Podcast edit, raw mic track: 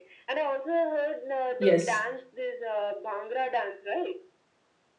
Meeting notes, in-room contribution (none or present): present